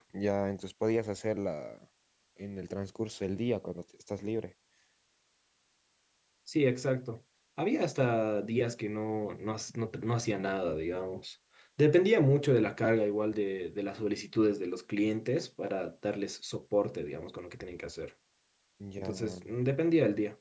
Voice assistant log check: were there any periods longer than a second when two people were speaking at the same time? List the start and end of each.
none

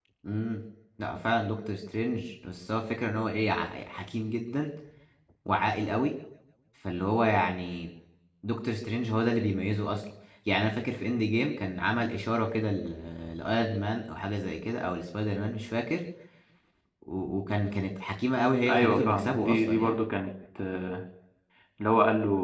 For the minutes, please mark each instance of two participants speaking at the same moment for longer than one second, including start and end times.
18.7-20.0

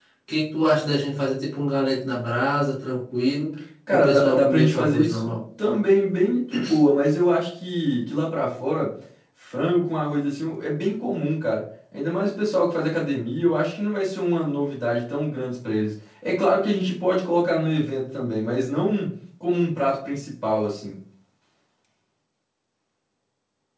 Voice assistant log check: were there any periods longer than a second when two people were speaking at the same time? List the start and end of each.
3.9-5.3

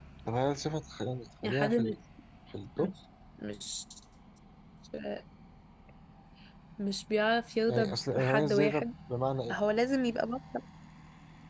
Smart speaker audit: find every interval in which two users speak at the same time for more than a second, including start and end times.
7.7-8.9

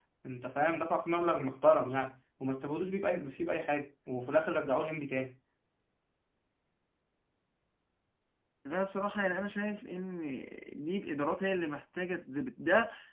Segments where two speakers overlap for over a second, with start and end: none

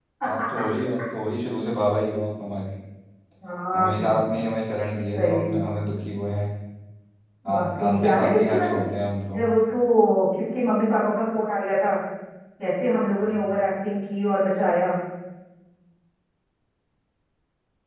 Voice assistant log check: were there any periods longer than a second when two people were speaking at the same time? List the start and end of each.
7.5-8.8

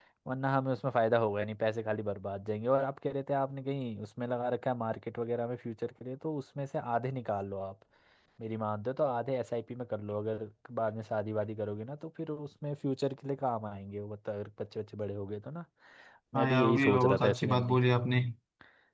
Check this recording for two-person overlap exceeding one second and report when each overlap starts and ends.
16.4-17.8

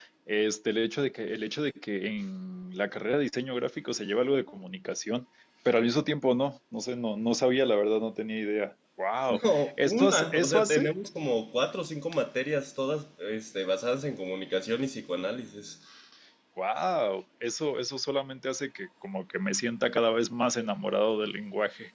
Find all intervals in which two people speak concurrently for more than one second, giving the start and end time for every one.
9.3-10.9

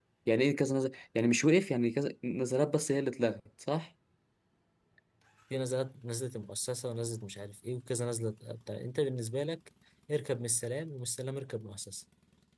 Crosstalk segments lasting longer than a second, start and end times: none

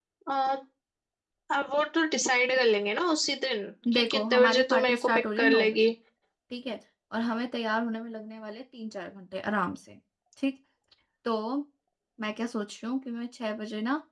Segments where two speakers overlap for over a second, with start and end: 3.9-5.8

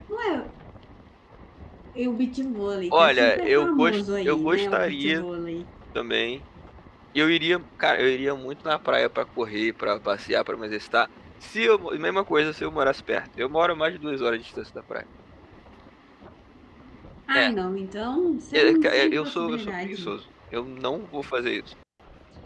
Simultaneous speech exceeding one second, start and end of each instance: 2.9-5.2, 18.5-20.1

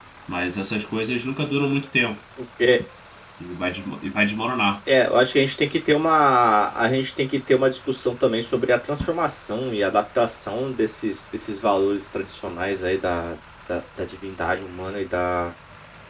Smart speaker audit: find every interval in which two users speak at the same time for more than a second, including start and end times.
none

